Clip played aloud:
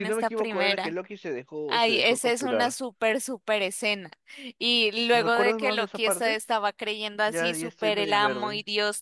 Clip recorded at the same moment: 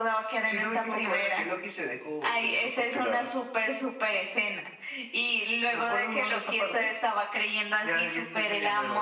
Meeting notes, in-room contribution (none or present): none